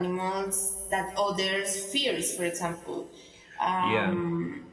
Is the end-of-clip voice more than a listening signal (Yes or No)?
No